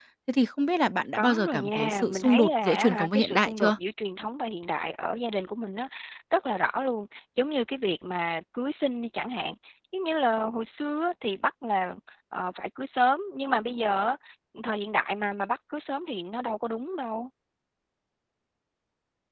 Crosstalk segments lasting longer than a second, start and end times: 1.1-3.7

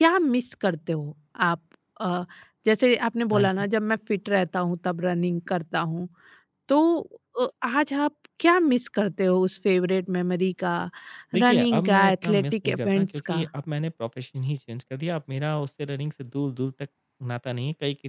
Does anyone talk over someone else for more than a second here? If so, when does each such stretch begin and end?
11.3-13.5

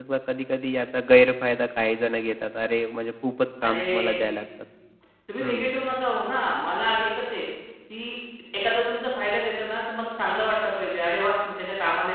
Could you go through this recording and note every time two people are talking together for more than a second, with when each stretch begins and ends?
none

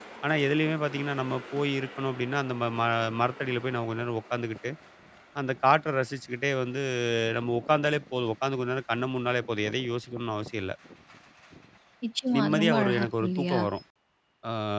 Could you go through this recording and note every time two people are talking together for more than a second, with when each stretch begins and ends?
12.4-13.6

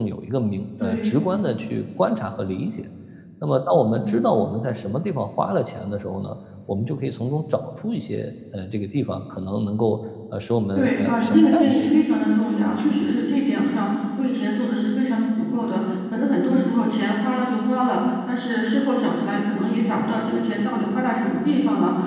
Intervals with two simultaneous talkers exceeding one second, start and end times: 10.8-12.0

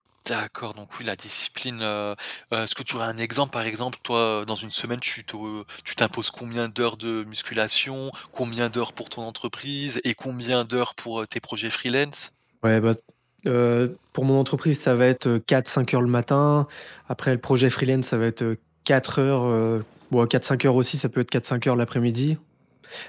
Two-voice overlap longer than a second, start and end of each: none

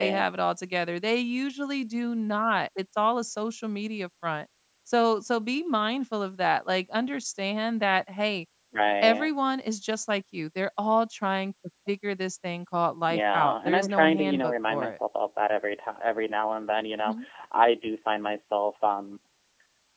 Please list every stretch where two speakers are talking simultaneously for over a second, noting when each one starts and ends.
13.1-15.0

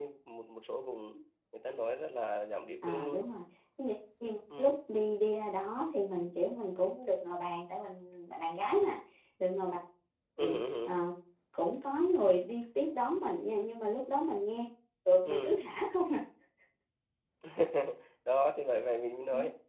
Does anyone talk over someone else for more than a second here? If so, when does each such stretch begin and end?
none

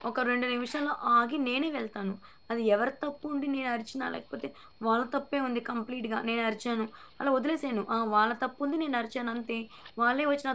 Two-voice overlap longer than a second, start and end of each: none

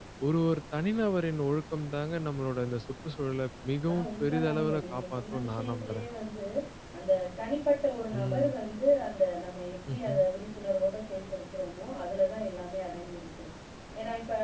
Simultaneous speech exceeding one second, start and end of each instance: 3.9-6.1

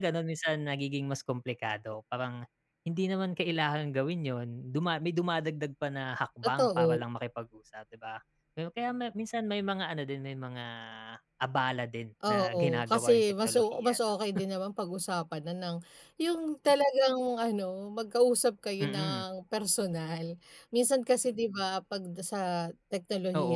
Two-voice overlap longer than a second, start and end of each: 12.3-14.0

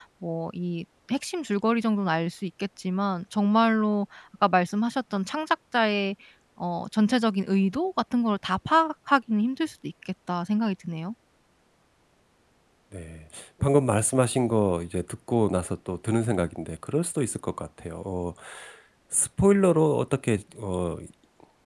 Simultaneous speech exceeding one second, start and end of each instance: none

